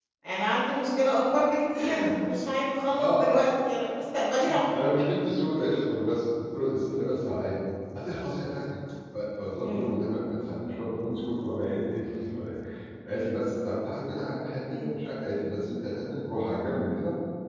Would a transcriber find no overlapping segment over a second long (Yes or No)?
Yes